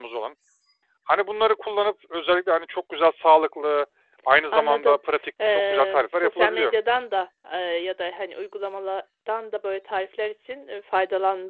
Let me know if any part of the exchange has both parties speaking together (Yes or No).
Yes